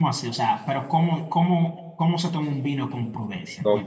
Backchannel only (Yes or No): No